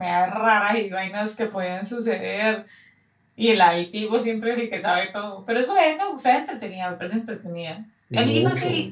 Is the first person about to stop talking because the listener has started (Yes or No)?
No